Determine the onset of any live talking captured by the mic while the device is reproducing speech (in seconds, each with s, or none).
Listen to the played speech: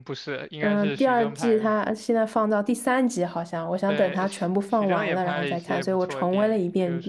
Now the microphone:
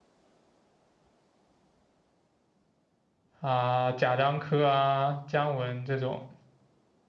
3.4 s